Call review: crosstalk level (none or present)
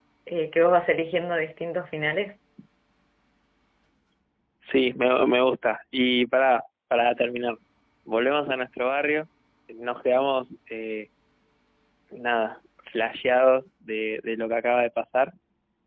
none